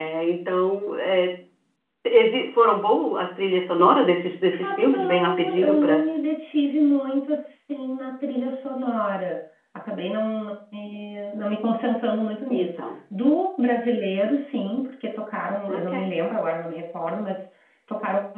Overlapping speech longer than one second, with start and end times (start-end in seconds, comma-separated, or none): 4.5-6.0